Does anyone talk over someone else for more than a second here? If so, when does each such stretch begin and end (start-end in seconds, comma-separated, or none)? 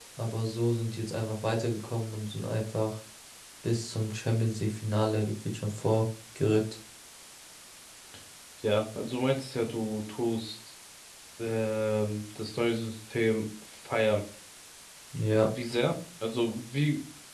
none